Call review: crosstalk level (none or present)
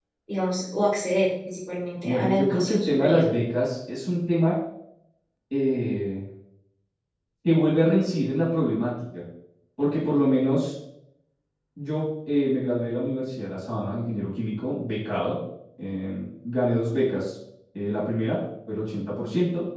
present